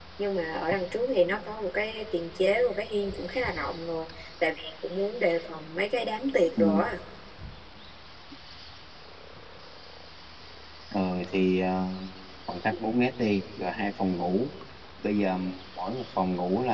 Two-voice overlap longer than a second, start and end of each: none

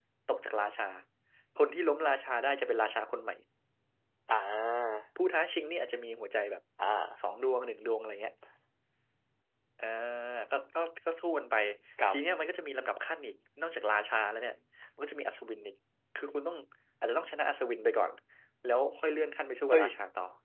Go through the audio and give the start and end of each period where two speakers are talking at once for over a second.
none

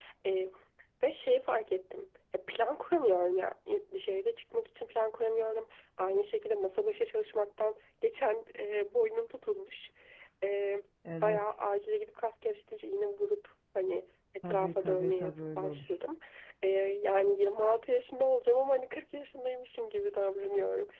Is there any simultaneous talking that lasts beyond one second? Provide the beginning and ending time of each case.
14.5-15.9

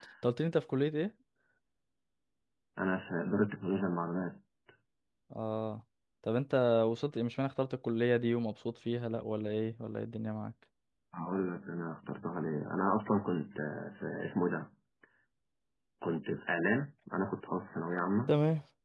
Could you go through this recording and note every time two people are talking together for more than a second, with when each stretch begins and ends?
none

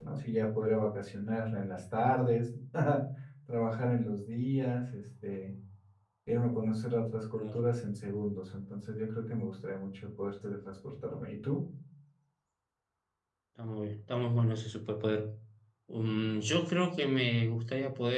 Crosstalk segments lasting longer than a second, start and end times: none

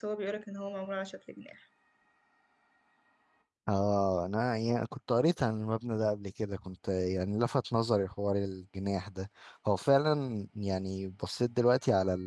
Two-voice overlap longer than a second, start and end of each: none

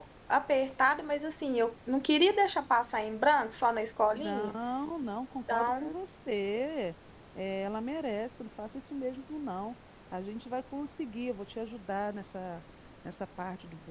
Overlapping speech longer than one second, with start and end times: none

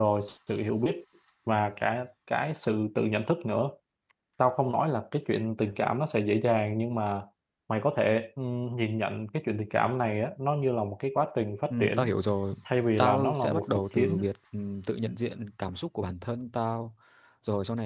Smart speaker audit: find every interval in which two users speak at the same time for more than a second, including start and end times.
13.0-14.2

